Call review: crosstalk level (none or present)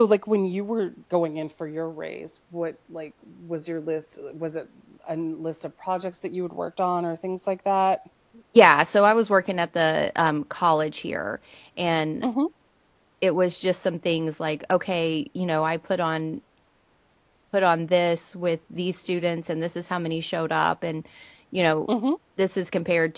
none